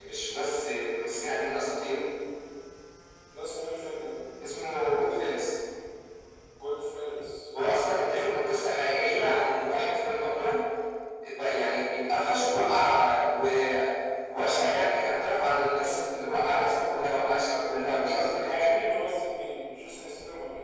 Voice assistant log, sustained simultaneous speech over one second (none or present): none